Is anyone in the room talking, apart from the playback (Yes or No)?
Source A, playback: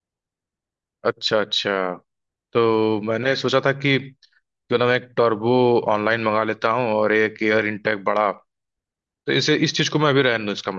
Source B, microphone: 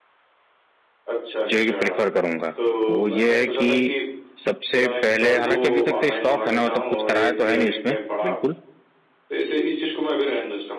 Yes